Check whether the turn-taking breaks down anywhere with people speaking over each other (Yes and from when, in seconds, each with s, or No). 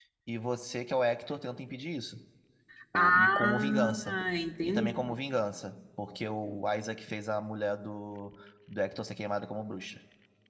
Yes, from 2.9 s